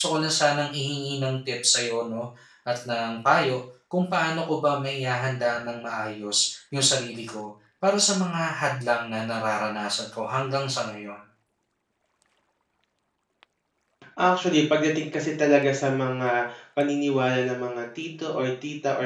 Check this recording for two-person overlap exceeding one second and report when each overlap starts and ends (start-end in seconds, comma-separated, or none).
none